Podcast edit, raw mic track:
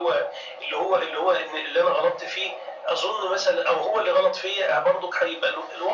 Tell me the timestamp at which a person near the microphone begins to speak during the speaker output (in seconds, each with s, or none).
none